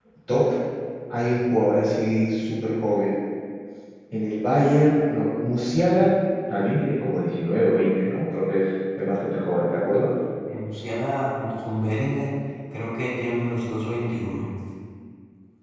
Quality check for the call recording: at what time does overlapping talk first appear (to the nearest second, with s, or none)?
none